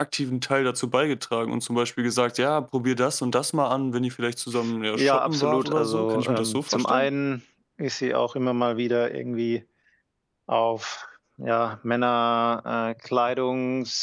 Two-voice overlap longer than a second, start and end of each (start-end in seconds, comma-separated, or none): 5.0-7.1